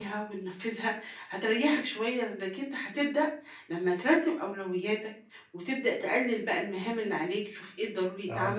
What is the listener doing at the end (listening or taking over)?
listening